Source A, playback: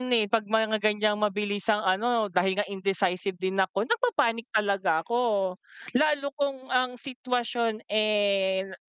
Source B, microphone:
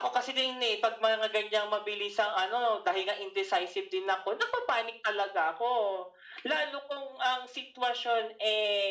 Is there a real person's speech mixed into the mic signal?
No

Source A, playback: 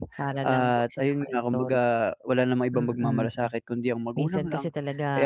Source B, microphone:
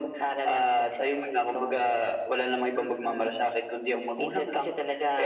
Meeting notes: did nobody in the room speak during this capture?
Yes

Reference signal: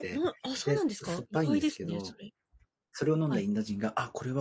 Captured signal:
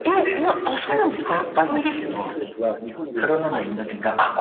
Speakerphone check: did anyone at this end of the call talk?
Yes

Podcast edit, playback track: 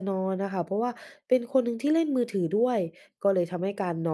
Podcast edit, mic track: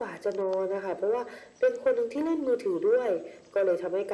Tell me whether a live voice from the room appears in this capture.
No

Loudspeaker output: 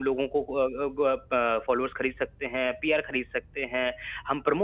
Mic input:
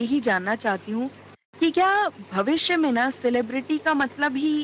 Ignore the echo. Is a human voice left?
Yes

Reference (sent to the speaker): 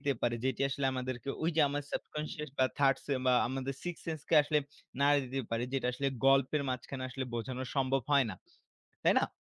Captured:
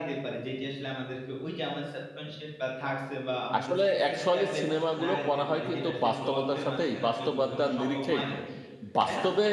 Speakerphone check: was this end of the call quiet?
No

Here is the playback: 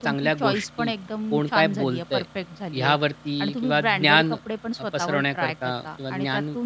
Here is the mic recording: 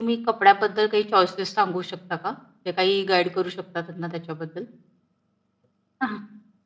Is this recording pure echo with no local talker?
No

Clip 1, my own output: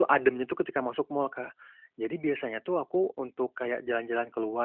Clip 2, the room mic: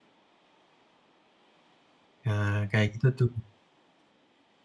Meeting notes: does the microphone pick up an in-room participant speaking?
Yes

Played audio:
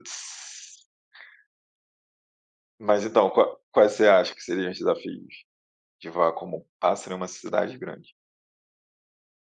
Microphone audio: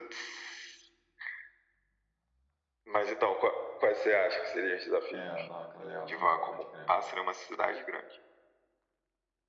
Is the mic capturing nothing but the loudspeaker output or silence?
No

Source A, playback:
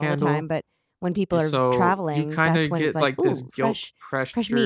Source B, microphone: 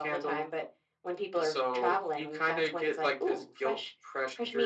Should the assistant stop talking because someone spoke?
No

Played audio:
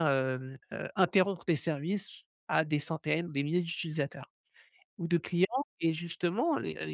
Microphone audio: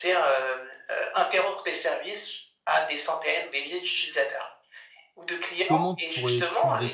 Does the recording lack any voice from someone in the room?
No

